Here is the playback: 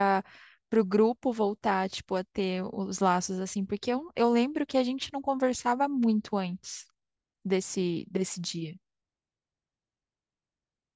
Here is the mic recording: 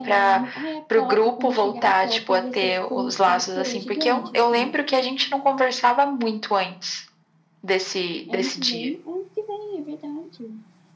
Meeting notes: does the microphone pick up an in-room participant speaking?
Yes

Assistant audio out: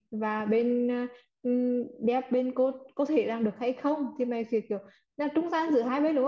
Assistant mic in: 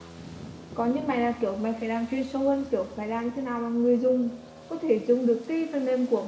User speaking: Yes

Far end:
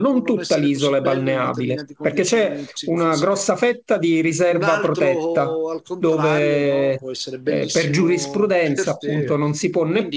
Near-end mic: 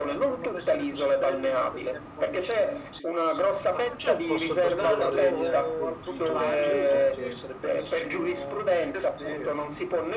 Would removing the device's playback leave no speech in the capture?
No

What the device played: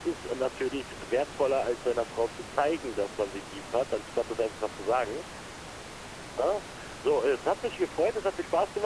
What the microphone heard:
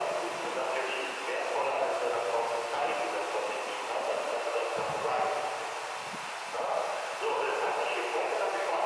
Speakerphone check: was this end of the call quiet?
Yes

